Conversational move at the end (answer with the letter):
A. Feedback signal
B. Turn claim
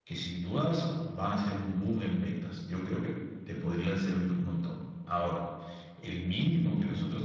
A